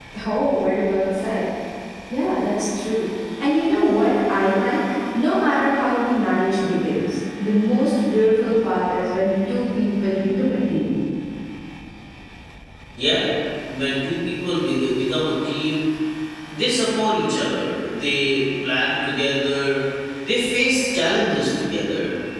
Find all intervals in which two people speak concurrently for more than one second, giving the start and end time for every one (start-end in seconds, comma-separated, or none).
none